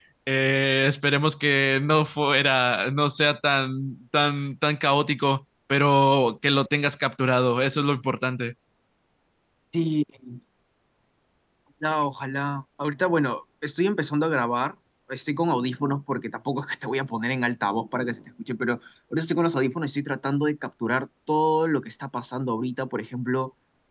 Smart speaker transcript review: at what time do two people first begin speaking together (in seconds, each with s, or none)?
none